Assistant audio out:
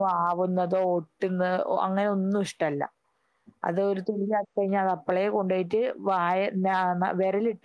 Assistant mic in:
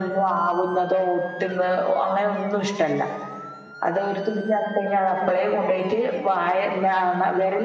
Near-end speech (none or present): none